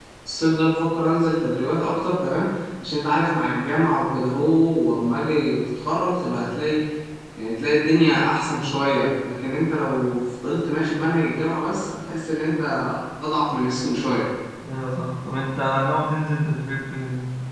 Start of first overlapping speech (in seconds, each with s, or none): none